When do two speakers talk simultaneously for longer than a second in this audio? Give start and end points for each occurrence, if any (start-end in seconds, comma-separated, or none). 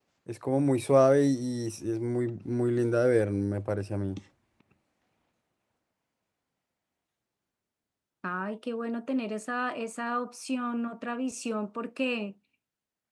none